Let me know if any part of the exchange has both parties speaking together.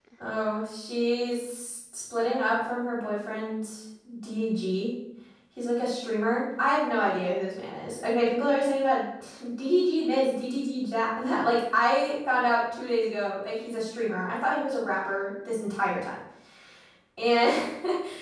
No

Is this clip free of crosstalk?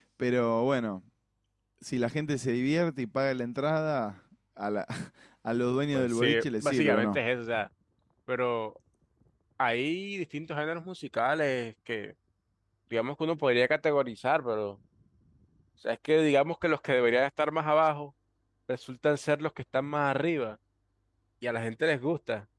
No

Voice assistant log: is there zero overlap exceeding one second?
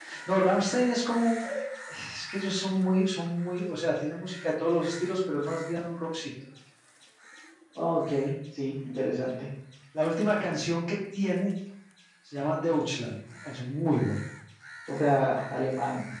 Yes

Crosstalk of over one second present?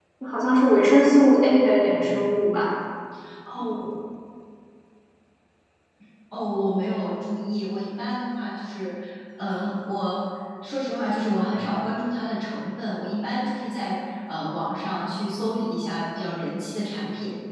No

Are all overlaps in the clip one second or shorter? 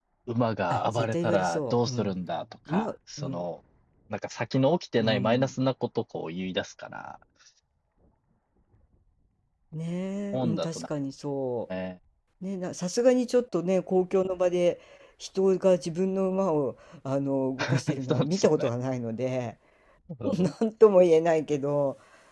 No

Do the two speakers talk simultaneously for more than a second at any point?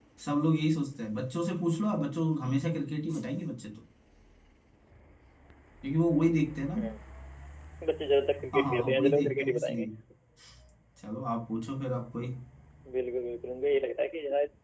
Yes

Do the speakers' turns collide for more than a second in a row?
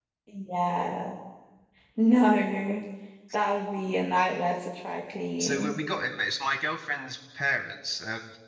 No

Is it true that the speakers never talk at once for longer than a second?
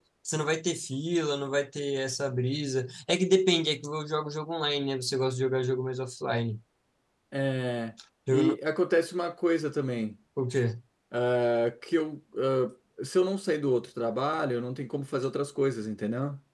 Yes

